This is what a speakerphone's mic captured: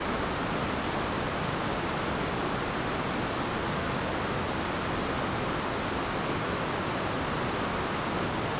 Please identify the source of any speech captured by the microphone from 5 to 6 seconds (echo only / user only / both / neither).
neither